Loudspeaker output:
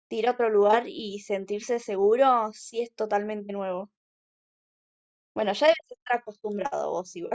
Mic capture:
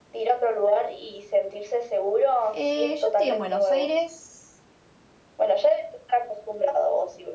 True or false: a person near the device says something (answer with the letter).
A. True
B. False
A